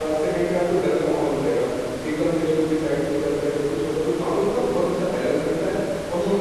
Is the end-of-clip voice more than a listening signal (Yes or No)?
Yes